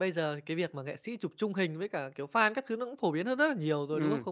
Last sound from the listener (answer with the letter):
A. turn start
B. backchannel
B